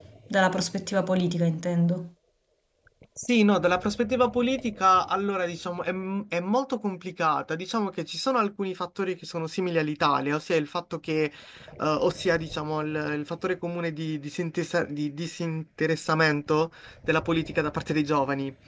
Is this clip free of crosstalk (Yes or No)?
Yes